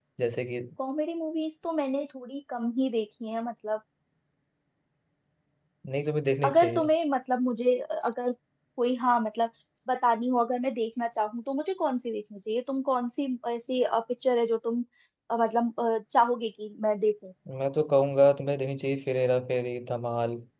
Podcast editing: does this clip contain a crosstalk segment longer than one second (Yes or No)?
No